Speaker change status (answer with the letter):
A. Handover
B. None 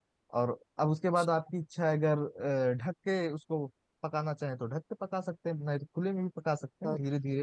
B